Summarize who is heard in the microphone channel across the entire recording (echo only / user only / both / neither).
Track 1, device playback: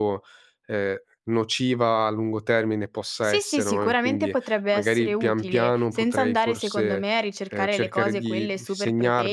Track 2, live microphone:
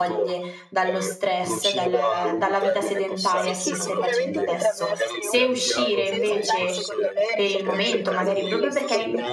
both